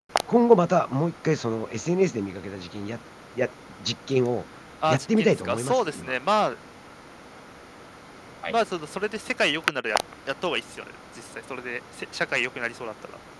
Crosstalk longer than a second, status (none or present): present